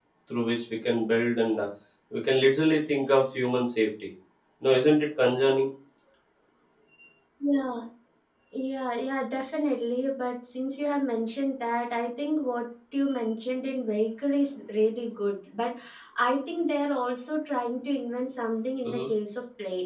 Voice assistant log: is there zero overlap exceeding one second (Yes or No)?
Yes